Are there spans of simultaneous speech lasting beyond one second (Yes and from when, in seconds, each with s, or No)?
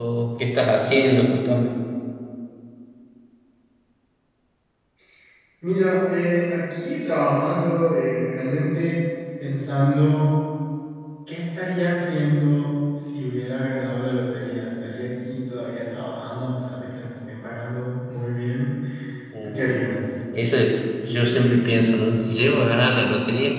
No